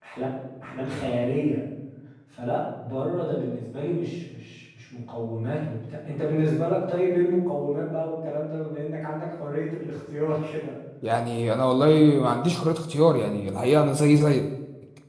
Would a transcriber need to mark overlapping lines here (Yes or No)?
No